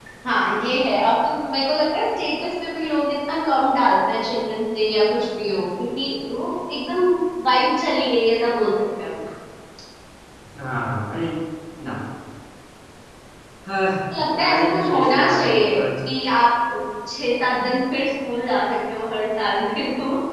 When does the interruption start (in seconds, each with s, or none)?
14.4 s